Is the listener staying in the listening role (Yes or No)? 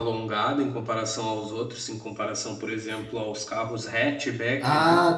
No